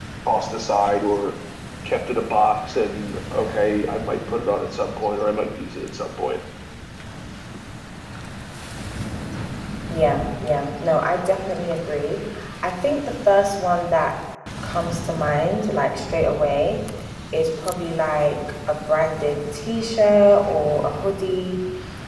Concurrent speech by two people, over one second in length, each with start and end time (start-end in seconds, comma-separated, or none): none